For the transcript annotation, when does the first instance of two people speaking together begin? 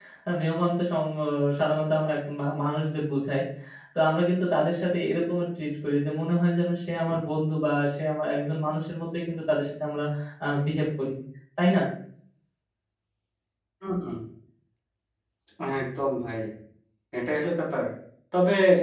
none

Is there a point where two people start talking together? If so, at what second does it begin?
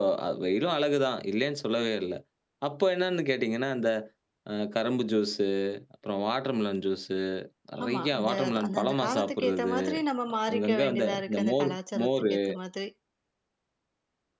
7.8 s

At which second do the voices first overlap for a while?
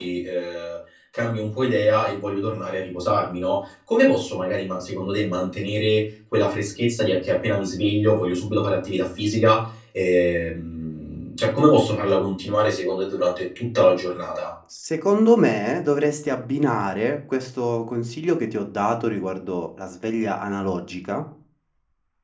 none

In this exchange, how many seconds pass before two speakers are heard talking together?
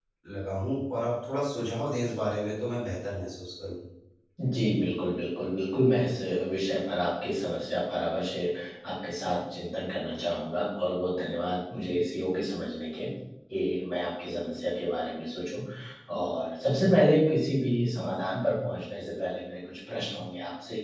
none

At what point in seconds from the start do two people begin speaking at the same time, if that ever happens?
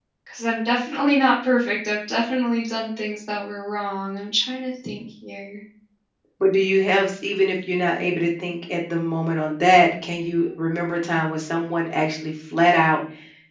none

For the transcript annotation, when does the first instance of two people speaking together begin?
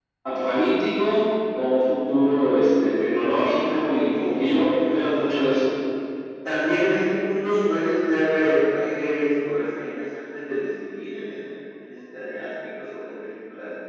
3.4 s

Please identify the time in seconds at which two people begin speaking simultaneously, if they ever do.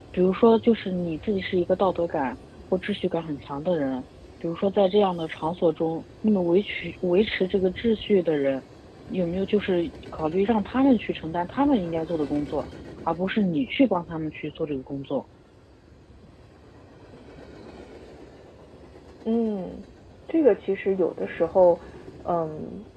none

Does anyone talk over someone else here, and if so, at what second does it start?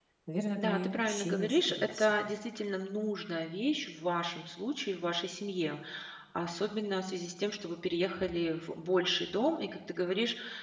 0.6 s

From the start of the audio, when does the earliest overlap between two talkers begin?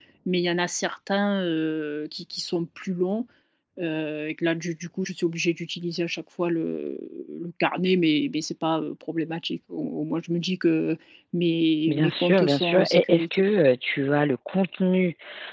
11.9 s

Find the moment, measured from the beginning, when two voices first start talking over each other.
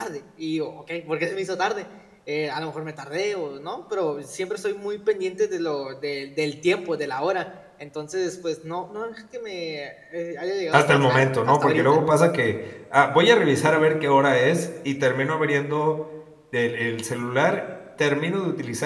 10.7 s

